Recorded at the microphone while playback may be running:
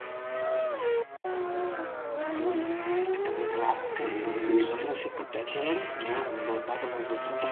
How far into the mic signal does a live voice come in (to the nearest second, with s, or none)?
4 s